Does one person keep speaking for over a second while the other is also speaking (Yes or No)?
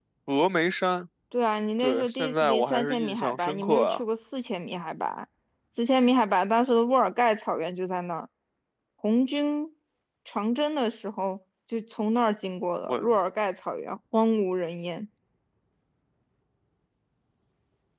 Yes